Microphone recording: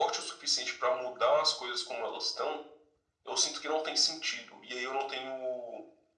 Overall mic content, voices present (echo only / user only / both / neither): echo only